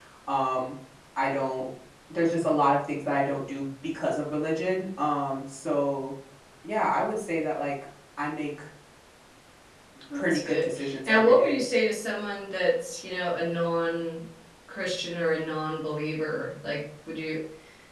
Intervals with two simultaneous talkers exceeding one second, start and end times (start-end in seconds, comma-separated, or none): 10.1-11.7